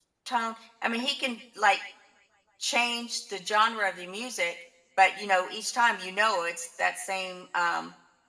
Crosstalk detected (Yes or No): No